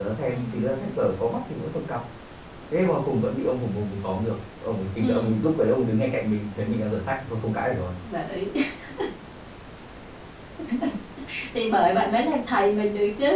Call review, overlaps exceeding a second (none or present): none